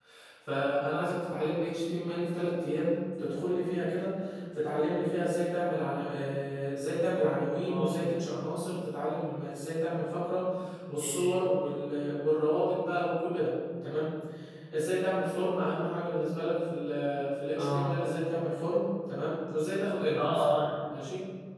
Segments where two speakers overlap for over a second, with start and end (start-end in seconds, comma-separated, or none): none